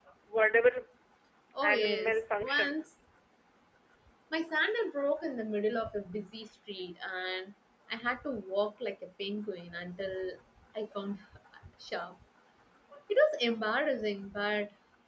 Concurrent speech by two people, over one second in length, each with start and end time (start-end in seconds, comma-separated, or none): 1.6-2.8